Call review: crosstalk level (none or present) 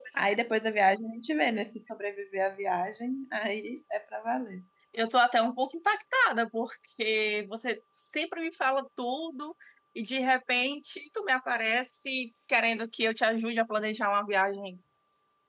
none